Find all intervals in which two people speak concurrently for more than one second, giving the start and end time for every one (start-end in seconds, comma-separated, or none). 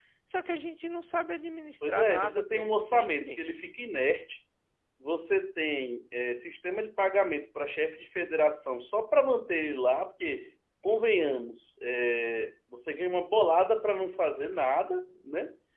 1.9-3.4